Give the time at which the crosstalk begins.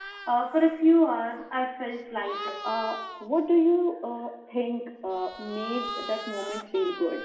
none

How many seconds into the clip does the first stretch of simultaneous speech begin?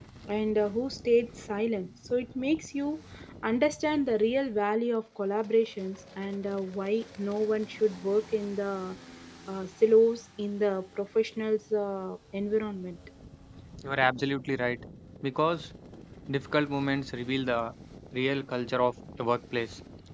none

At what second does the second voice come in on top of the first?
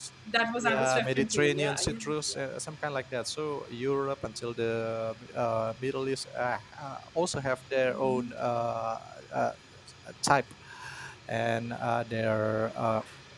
0.6 s

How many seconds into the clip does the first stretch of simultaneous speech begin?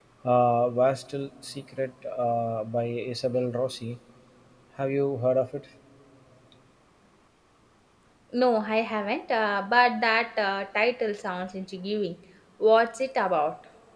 none

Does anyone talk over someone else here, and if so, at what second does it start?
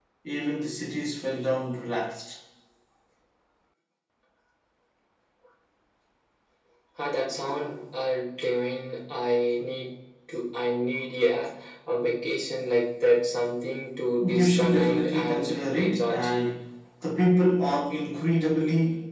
14.2 s

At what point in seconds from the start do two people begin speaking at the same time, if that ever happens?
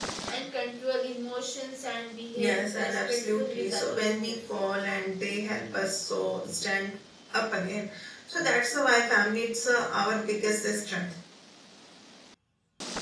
2.3 s

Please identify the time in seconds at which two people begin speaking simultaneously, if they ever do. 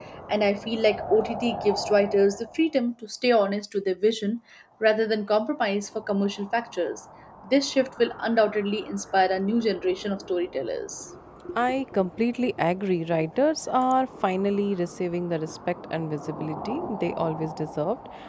none

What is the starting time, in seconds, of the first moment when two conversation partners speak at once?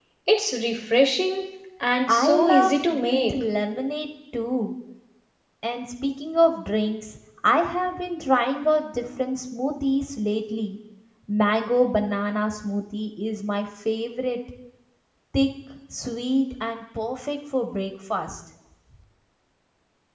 2.1 s

